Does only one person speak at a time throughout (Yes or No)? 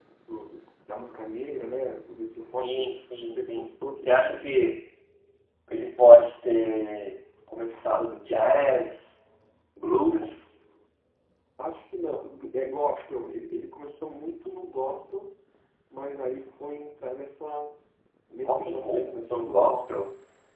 No